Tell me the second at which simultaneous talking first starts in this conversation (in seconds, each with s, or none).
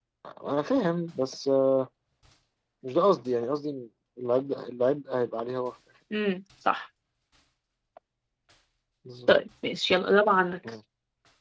none